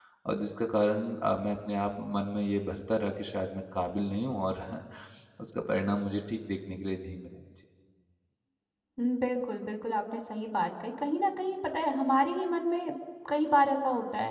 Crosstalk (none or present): none